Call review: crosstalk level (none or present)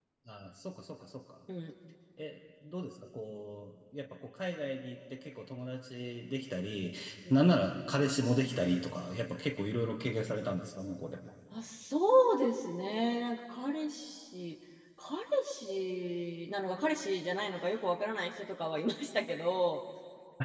none